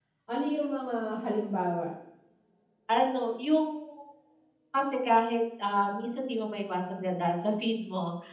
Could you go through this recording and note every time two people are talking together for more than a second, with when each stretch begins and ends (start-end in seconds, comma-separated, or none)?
none